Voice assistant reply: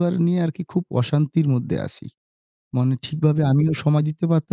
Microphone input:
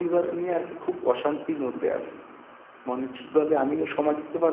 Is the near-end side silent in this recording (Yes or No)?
Yes